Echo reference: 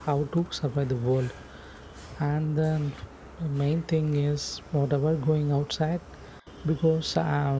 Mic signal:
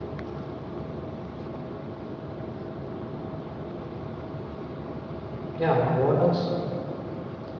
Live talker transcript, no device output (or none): yeah what else